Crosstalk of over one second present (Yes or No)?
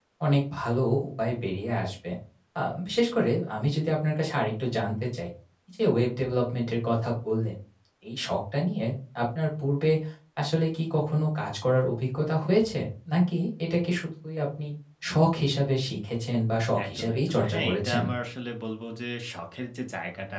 Yes